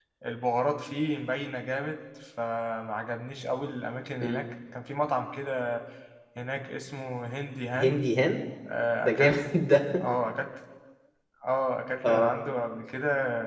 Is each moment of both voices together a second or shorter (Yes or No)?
Yes